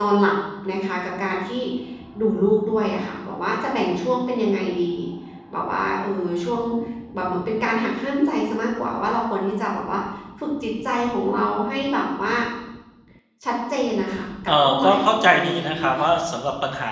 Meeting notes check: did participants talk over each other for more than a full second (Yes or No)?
Yes